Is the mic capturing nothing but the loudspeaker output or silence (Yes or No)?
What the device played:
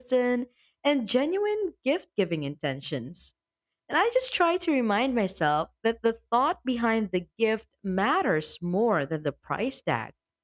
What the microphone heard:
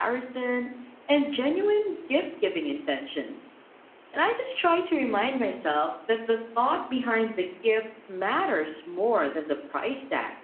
Yes